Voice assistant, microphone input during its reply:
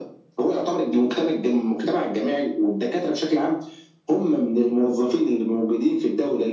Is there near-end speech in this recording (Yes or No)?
No